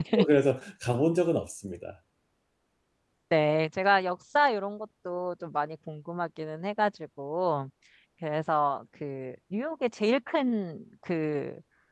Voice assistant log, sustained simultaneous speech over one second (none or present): none